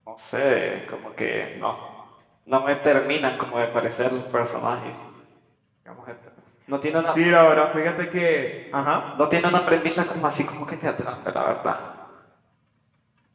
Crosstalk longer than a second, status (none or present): none